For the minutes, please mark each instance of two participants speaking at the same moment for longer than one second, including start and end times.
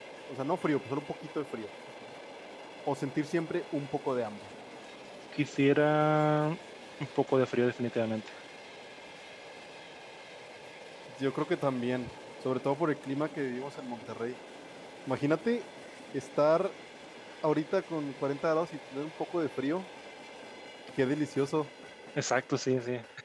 none

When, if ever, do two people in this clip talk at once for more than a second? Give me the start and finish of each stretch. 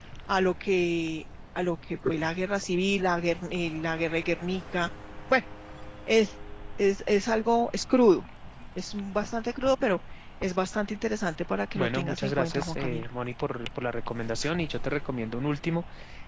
11.8-13.1

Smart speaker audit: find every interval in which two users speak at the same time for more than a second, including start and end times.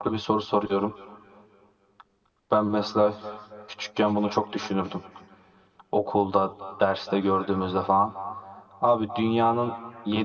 none

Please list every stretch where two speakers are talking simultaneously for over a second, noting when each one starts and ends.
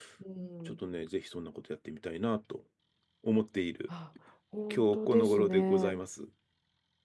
4.8-6.0

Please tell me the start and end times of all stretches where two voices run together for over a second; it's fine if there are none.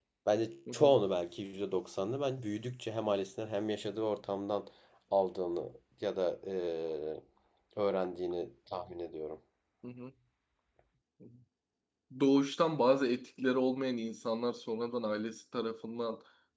none

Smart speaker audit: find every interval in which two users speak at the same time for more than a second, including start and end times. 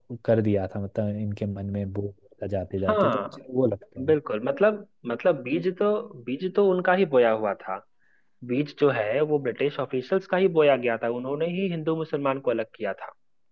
none

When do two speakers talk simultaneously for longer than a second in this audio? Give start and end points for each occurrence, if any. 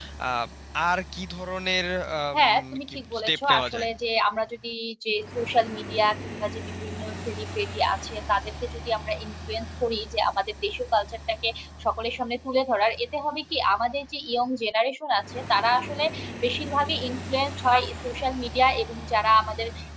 2.3-3.9

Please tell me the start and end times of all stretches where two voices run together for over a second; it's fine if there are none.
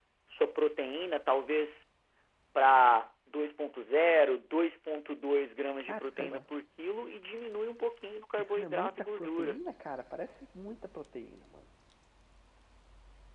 8.4-9.6

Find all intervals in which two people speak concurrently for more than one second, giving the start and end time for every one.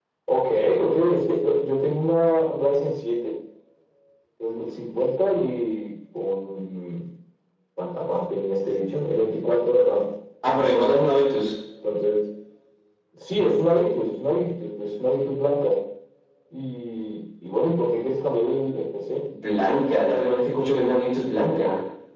none

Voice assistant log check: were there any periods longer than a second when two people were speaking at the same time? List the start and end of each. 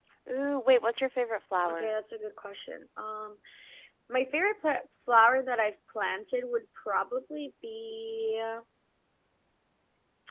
none

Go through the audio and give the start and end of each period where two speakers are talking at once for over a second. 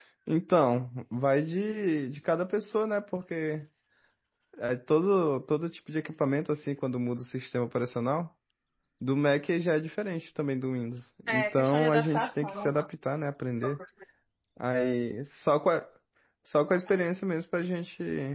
11.3-12.7

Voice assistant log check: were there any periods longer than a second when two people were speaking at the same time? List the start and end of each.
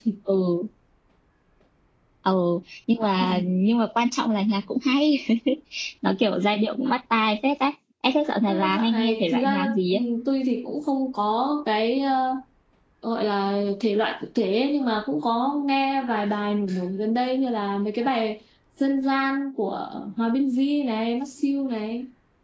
8.5-10.0

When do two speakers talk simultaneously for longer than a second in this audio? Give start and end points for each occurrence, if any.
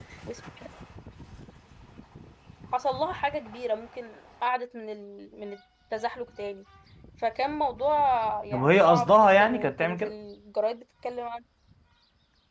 8.5-10.1

